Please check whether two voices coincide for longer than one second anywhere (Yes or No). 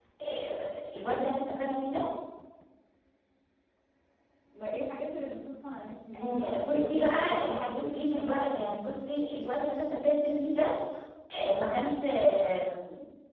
Yes